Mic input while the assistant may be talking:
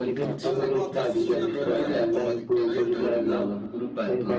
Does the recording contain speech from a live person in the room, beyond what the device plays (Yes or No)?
Yes